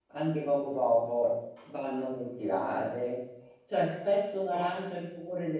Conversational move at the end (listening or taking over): listening